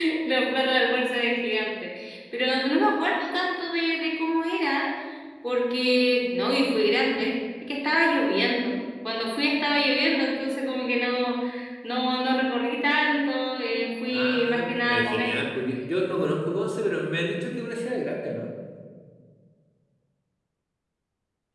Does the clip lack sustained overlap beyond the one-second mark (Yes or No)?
No